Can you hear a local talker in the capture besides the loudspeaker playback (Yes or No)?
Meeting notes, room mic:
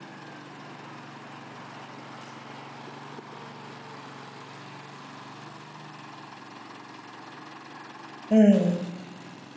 Yes